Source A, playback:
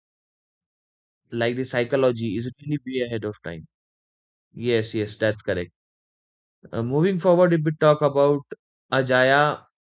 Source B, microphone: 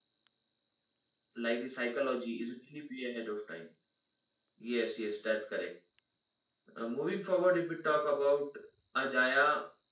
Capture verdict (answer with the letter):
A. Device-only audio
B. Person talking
A